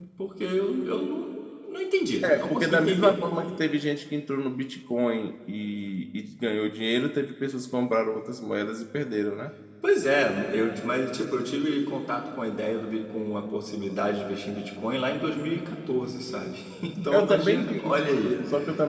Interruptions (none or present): present